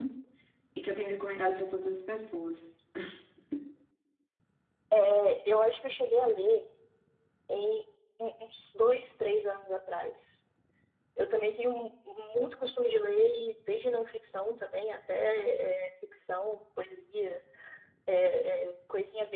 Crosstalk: none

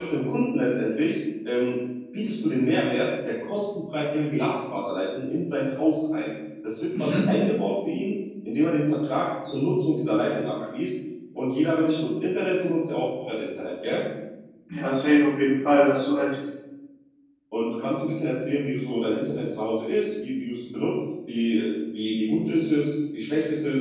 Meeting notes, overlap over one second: none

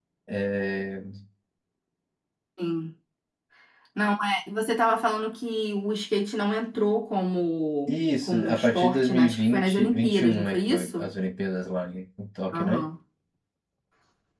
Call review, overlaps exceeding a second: present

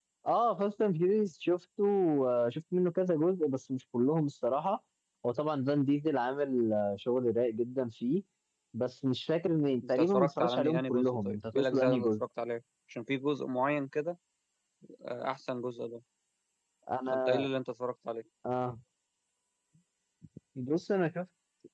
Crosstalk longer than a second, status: present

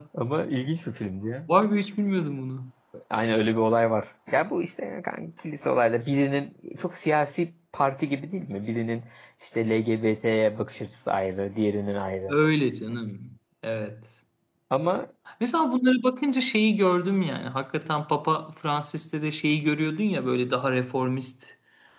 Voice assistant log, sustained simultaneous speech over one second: none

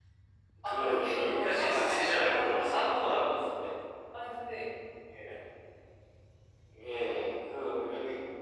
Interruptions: present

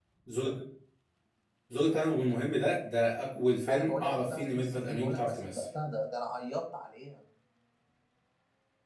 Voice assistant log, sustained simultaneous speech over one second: present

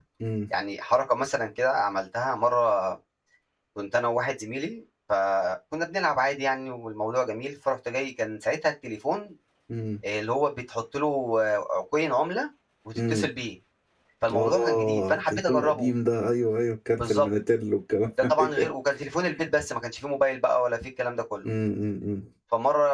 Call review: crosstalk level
present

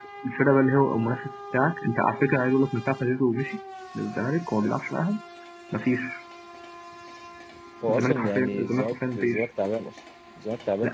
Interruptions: present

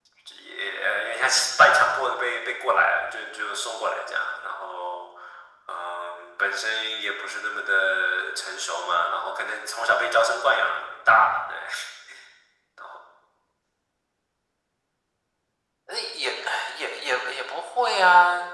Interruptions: none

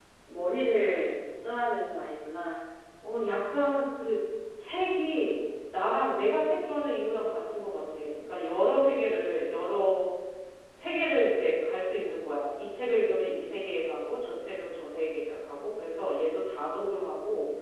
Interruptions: none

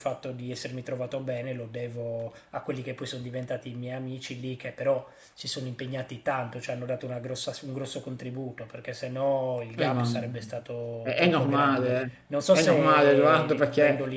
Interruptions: present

